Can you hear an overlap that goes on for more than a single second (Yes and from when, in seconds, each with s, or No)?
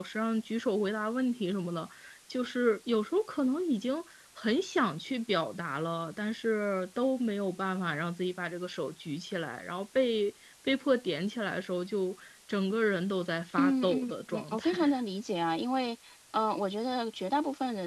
Yes, from 13.6 s